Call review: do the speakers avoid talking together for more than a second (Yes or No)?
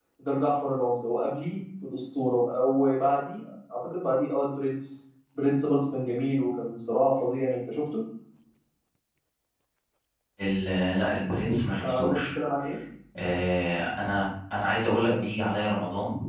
Yes